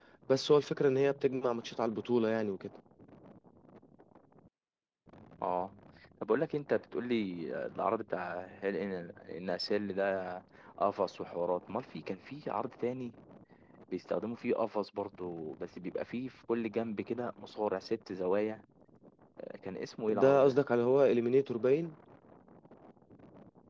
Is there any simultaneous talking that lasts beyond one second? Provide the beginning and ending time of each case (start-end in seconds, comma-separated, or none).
none